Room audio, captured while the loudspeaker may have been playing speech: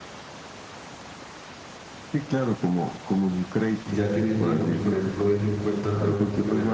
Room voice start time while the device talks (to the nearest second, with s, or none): 4 s